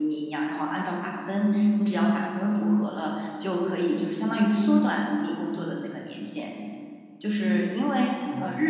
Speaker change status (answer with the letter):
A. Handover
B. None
B